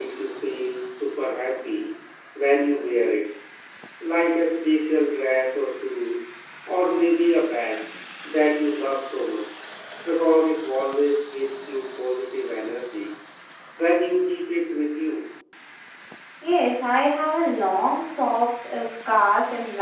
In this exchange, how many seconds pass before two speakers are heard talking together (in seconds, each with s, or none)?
none